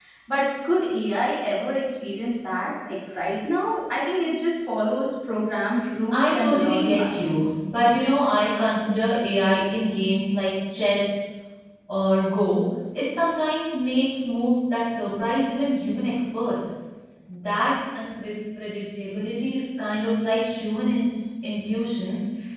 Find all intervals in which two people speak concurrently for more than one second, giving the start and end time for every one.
6.1-7.5

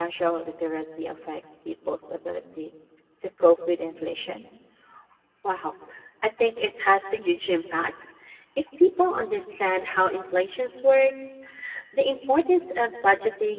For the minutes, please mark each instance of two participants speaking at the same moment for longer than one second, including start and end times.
none

